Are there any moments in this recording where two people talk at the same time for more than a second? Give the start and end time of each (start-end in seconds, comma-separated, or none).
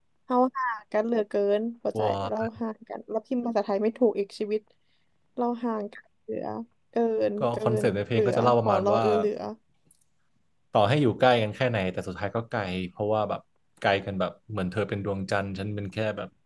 7.4-9.0